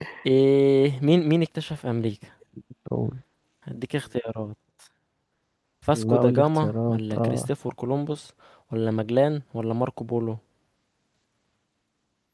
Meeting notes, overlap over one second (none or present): present